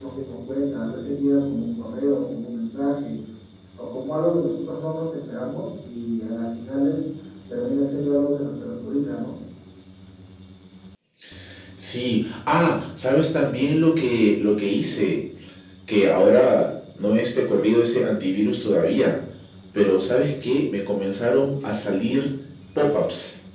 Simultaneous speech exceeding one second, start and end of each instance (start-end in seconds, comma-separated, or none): none